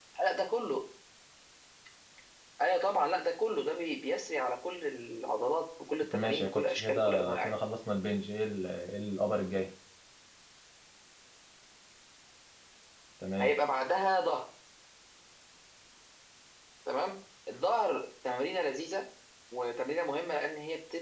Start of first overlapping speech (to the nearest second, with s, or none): 6 s